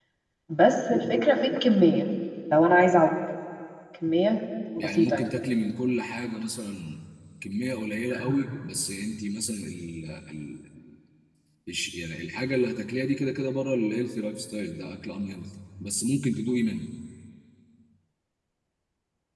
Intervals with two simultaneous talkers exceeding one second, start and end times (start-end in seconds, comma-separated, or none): none